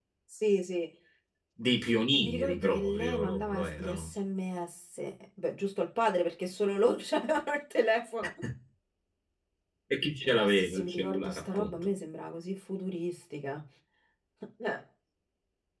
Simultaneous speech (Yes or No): Yes